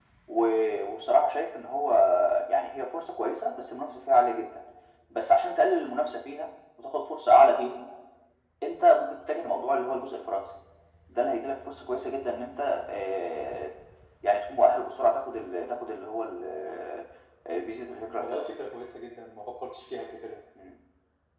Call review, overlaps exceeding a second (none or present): none